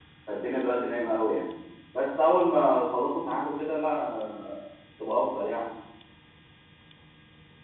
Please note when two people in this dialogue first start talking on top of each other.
none

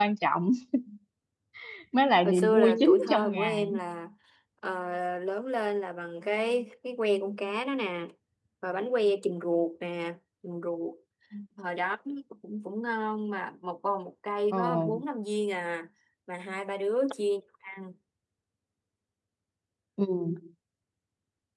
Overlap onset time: 2.2 s

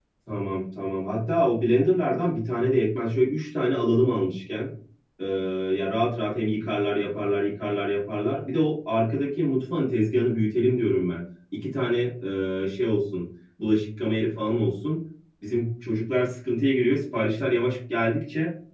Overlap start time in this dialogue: none

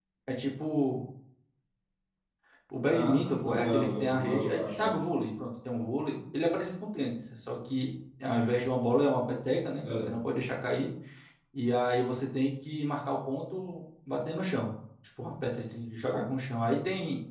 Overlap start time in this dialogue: 2.9 s

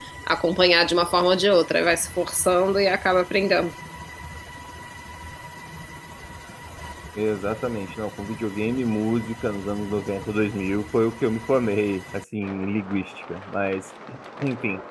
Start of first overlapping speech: none

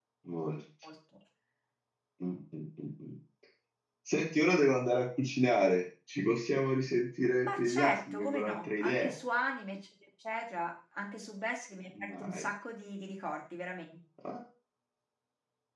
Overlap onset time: 7.4 s

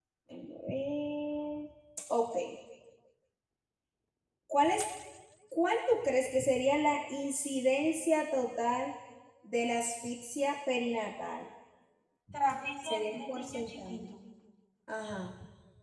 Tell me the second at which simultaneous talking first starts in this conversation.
12.8 s

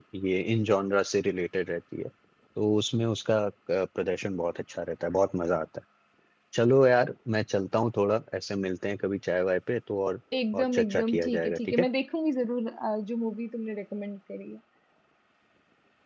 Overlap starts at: 10.3 s

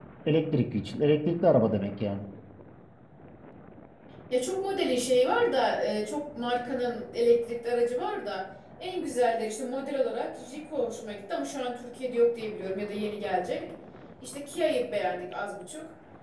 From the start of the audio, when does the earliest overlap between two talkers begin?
none

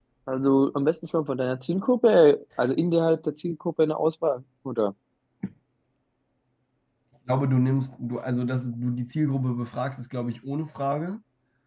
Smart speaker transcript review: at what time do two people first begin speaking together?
none

